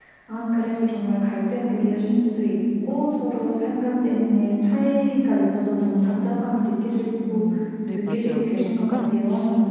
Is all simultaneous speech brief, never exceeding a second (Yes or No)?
No